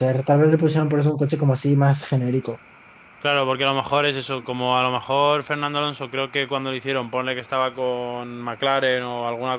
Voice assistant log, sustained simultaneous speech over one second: none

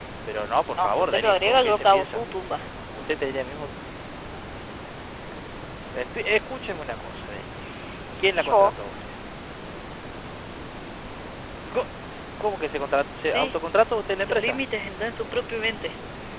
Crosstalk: present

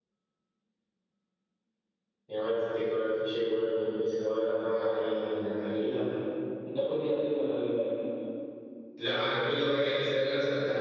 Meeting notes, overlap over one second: none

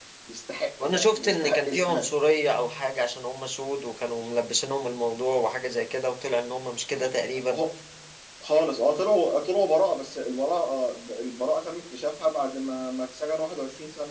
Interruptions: present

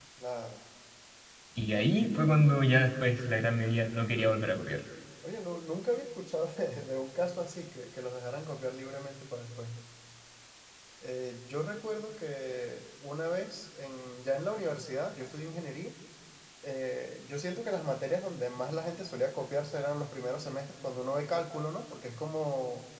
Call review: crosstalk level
none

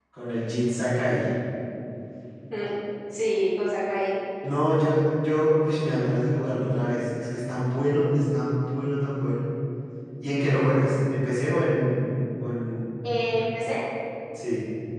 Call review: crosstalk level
none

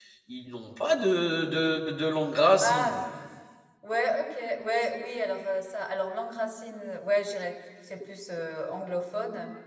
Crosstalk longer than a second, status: none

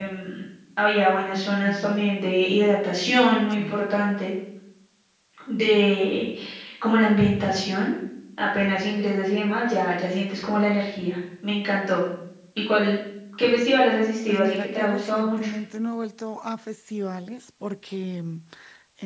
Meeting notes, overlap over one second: present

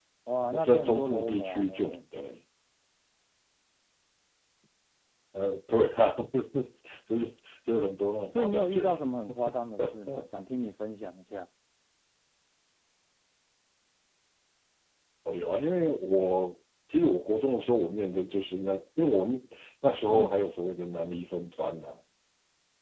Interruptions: present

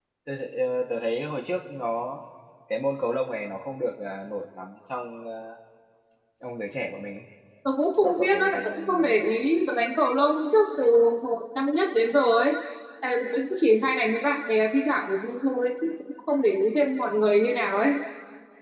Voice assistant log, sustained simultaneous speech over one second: present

